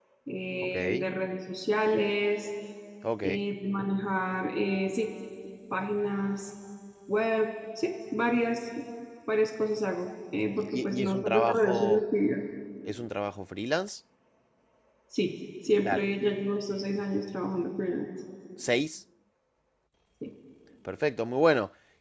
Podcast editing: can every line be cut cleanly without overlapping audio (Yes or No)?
No